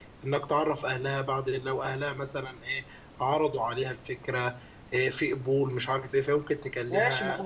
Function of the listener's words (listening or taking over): taking over